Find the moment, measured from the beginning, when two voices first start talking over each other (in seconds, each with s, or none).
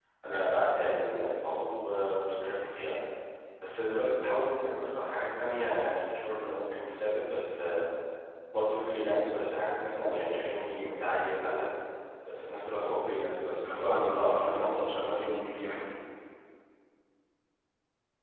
13.6 s